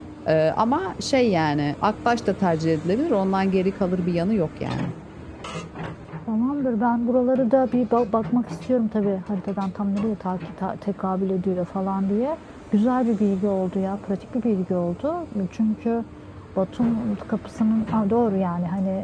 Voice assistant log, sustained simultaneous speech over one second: none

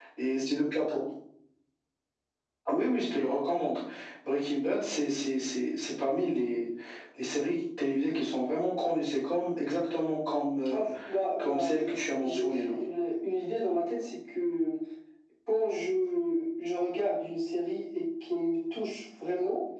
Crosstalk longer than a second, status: present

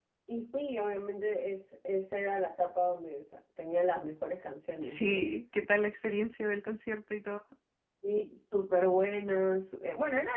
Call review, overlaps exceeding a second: none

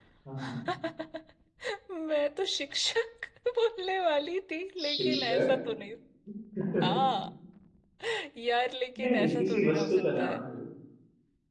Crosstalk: present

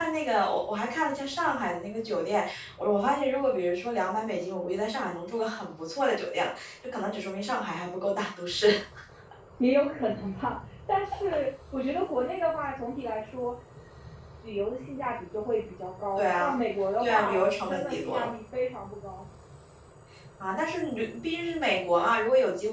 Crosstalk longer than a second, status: present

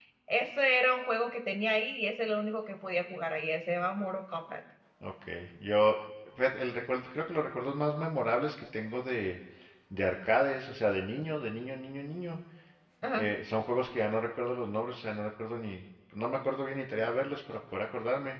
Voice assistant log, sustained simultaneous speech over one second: none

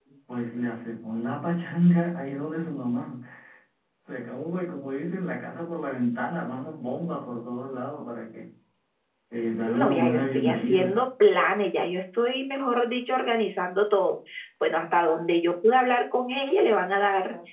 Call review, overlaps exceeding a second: present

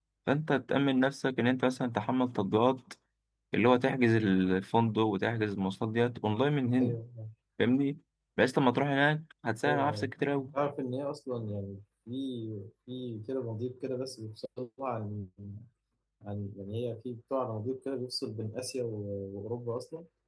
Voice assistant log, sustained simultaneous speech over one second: none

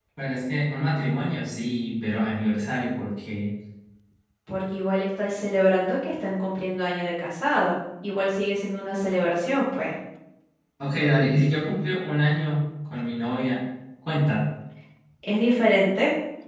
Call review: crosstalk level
none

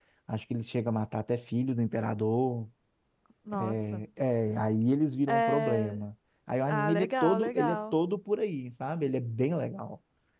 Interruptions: present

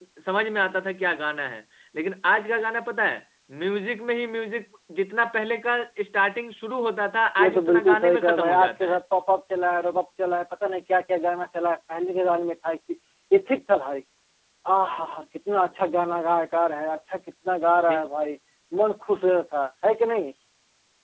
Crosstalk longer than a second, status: present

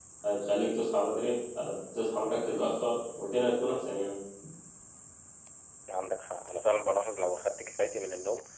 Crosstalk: none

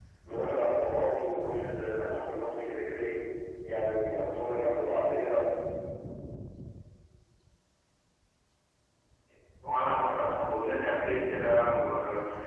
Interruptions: none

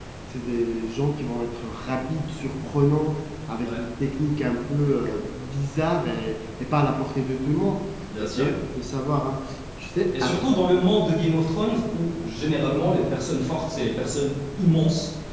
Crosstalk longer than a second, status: none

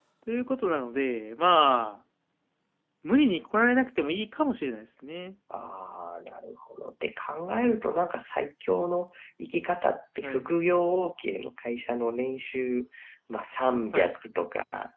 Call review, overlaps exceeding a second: none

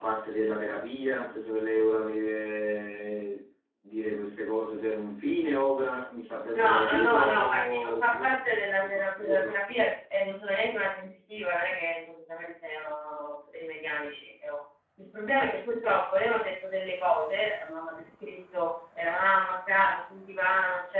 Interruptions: present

